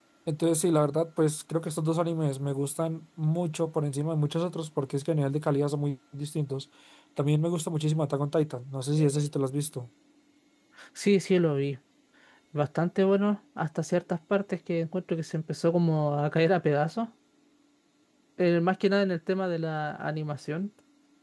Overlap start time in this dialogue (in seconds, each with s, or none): none